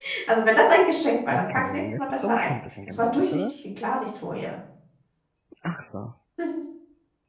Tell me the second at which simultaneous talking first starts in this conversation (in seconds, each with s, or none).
1.3 s